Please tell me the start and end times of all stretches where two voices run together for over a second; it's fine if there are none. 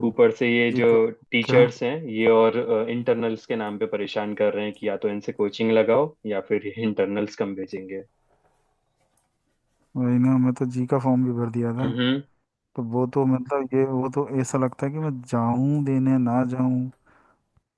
none

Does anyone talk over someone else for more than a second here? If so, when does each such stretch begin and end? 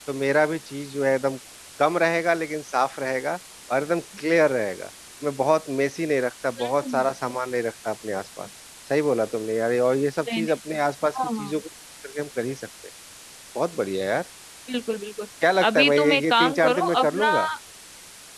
15.7-17.3

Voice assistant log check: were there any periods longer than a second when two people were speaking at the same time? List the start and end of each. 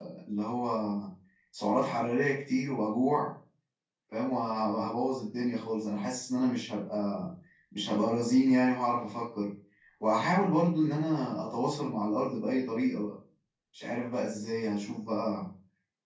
none

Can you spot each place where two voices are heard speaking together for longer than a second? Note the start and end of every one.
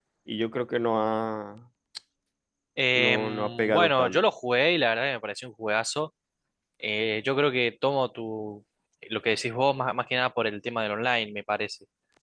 3.0-4.2

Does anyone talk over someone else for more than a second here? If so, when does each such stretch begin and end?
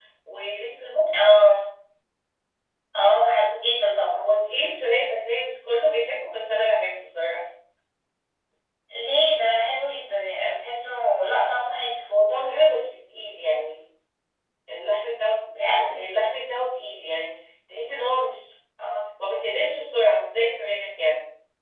none

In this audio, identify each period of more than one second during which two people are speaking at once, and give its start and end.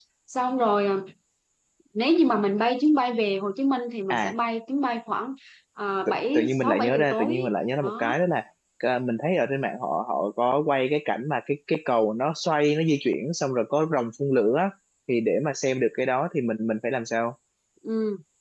6.1-7.4

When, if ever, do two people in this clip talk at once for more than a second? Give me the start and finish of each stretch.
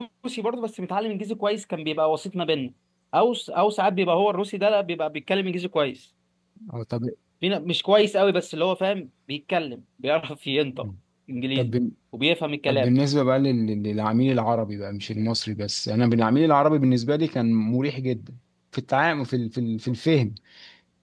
none

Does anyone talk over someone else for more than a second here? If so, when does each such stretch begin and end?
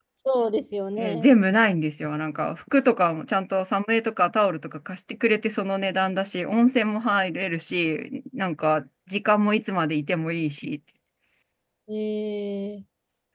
none

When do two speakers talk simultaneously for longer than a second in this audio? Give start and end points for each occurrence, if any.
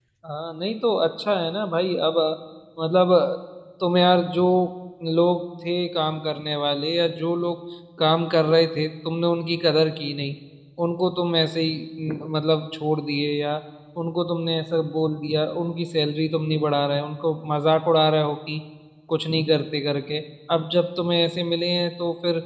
none

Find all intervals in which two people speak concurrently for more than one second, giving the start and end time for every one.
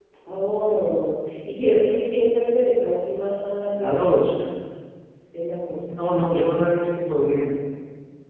none

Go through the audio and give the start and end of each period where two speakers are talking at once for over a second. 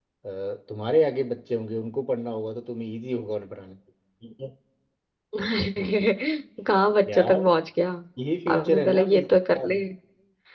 8.5-9.8

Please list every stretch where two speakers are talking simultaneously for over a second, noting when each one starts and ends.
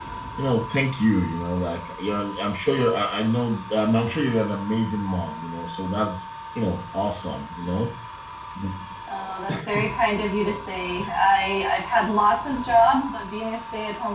none

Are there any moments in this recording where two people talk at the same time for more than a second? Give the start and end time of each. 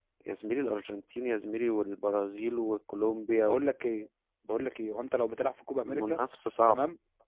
none

